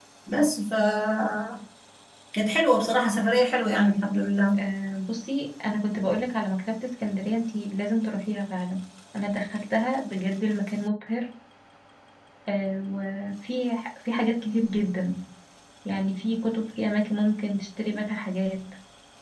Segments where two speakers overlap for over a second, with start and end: none

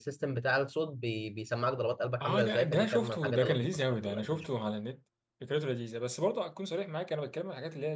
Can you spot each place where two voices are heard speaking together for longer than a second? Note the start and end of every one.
2.2-4.5

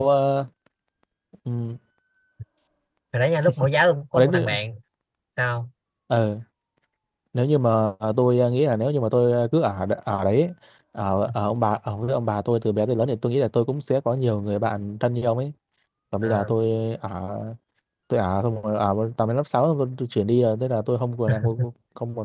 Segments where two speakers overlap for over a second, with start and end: none

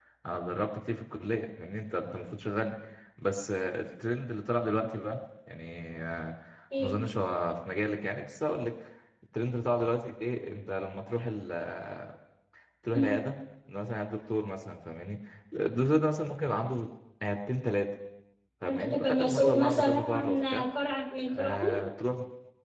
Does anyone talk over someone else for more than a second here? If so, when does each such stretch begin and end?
18.6-20.6

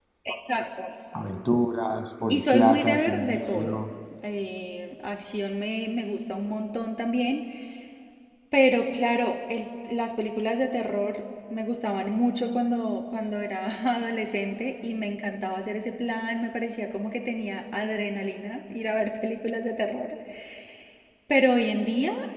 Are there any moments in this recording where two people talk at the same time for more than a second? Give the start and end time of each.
2.3-3.8

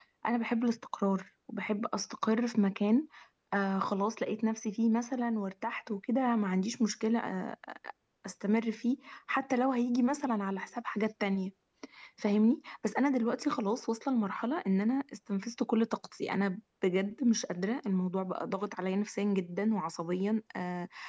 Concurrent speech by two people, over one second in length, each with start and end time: none

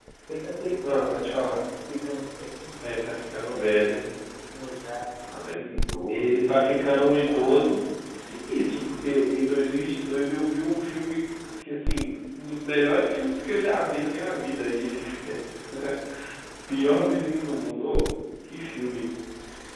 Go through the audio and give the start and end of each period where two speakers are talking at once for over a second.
6.1-7.7

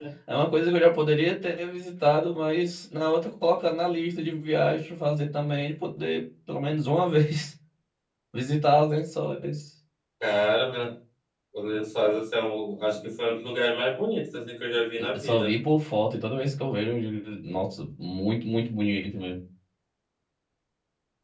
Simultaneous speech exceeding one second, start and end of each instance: none

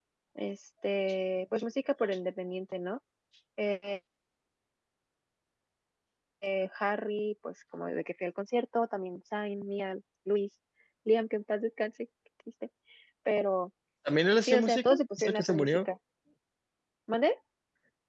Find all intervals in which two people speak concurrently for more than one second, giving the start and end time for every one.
14.4-15.9

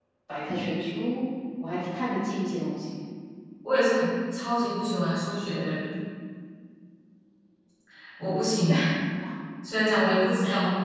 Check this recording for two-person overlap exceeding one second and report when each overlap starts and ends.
none

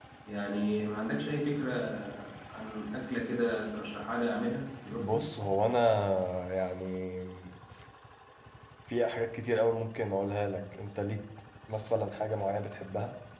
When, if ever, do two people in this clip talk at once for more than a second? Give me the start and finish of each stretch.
none

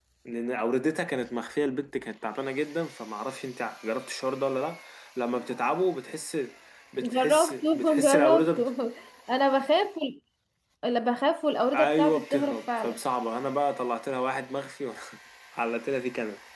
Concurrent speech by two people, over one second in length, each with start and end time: 7.0-8.6, 11.7-13.0

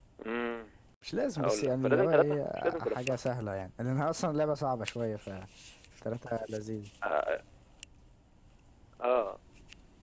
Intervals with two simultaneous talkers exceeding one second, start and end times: 1.4-3.2

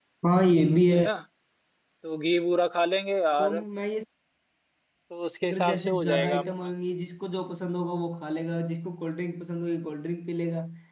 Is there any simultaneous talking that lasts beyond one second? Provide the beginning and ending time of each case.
5.4-6.7

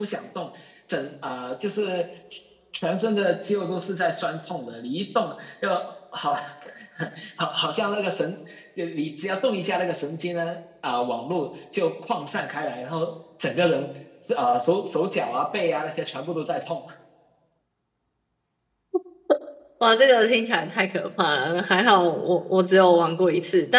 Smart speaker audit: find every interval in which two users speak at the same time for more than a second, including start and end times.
none

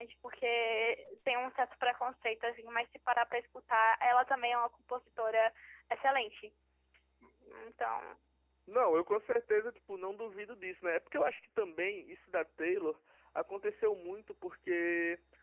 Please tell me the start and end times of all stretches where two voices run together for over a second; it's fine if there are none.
none

